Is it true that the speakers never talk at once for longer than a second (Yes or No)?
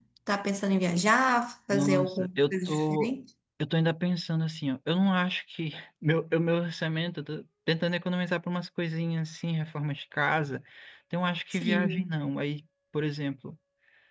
No